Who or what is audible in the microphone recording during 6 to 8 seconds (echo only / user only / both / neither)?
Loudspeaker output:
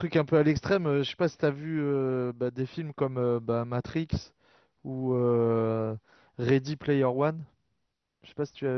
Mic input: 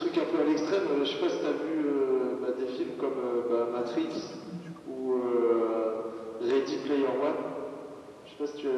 echo only